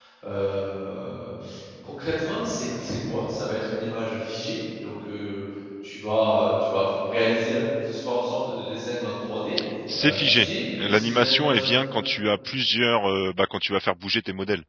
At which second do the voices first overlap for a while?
10.0 s

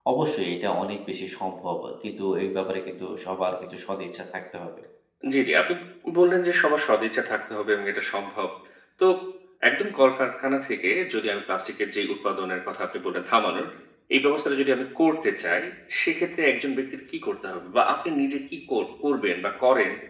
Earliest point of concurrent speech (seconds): none

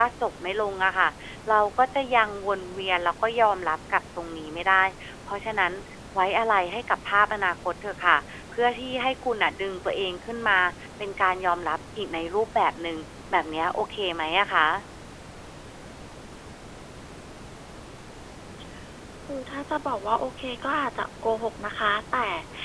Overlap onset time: none

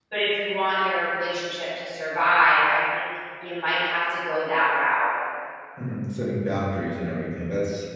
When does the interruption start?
none

